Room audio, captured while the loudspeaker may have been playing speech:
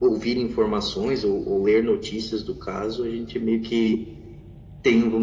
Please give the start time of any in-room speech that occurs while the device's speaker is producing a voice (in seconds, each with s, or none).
none